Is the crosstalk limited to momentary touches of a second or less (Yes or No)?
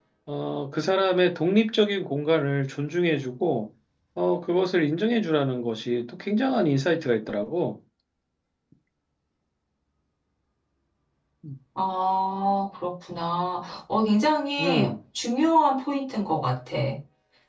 Yes